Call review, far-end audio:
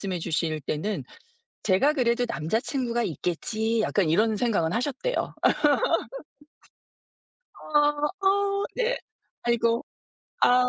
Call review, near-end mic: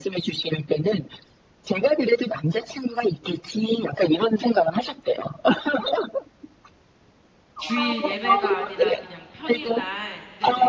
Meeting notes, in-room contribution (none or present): present